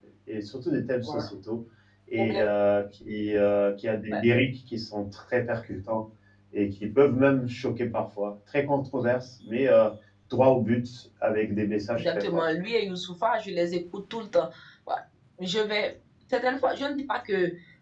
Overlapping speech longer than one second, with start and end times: none

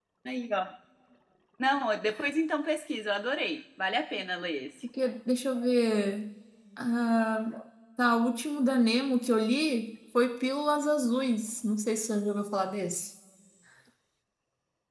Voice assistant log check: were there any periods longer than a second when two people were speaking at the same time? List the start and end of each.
none

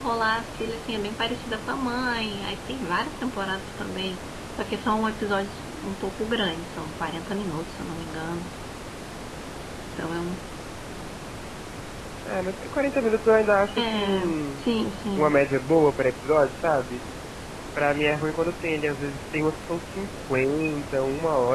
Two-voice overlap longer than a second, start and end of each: none

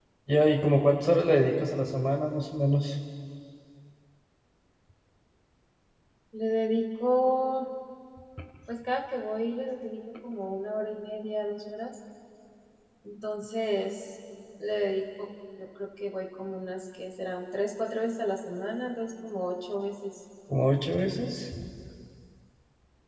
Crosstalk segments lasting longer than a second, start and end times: none

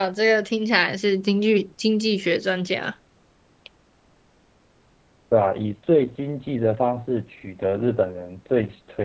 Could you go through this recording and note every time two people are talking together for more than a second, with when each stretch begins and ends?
none

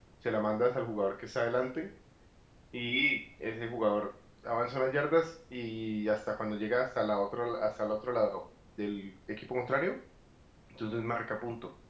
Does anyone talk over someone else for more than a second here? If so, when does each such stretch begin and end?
none

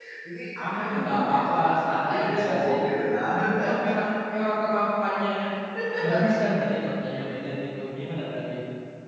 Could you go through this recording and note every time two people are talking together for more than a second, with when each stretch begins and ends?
0.7-2.8

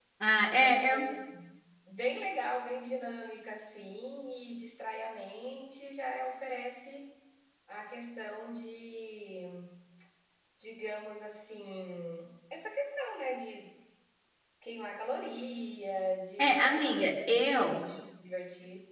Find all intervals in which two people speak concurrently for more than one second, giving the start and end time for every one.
16.4-17.8

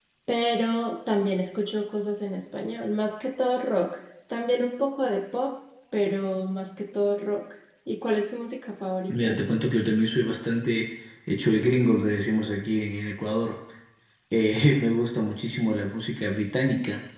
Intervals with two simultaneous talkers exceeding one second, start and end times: none

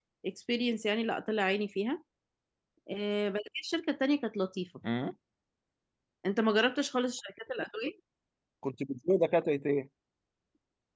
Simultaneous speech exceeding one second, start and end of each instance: none

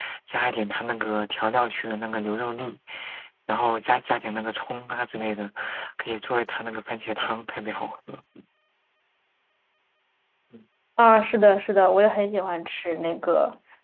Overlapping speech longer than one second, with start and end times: none

